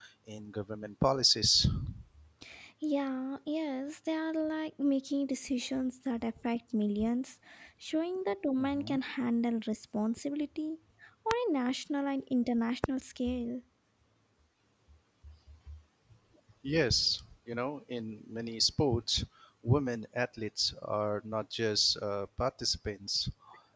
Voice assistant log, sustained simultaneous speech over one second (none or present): none